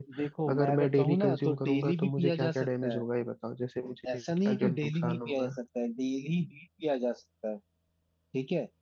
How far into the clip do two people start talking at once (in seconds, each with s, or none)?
0.5 s